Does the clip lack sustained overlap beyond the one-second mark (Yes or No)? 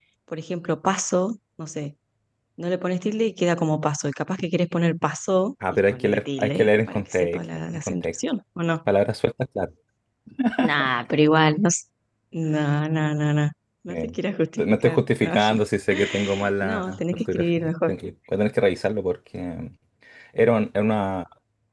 No